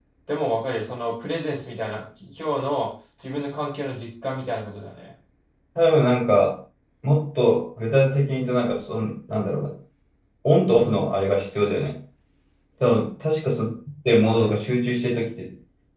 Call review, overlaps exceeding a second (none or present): none